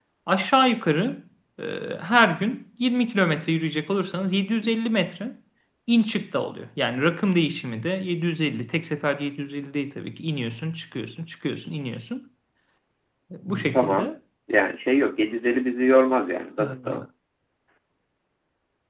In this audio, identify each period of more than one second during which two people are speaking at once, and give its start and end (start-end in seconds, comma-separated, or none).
none